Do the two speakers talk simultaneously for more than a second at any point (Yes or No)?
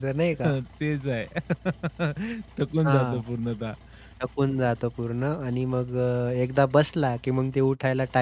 No